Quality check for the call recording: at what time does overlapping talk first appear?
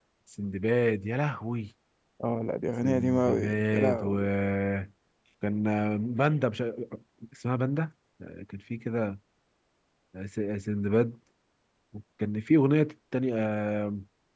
2.8 s

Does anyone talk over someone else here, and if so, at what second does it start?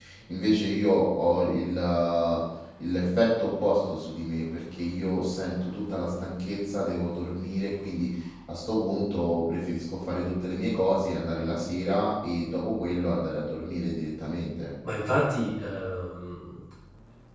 none

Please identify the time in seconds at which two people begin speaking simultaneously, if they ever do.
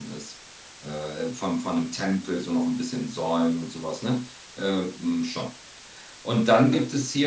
none

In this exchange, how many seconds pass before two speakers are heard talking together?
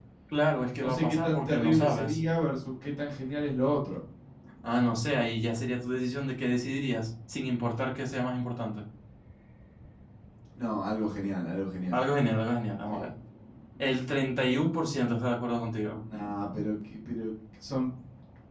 0.8 s

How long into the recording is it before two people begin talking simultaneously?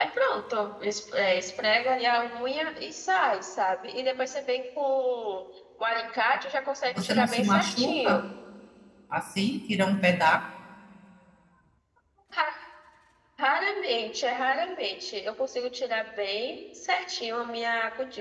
7.0 s

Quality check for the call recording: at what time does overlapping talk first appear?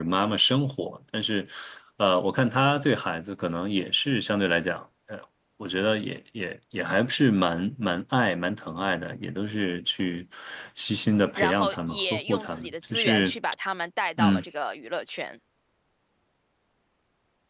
11.4 s

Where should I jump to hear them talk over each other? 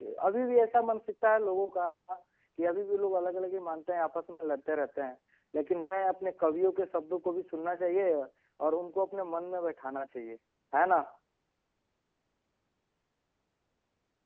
none

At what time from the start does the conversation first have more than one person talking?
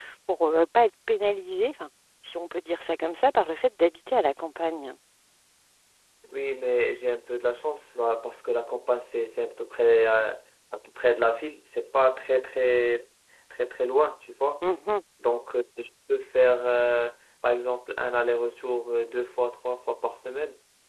none

